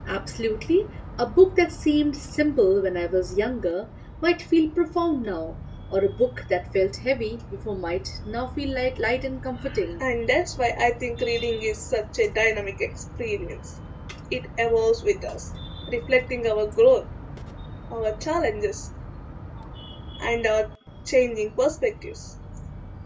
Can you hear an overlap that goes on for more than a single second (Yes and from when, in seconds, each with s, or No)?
No